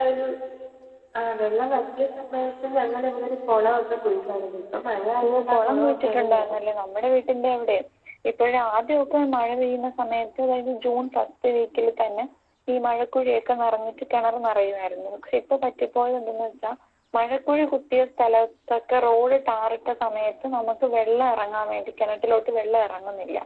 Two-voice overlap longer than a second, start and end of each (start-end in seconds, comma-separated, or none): 5.3-6.5